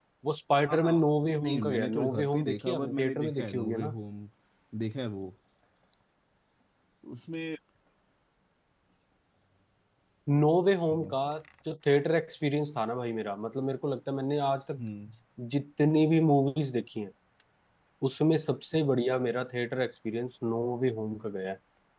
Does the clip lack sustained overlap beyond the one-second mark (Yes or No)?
No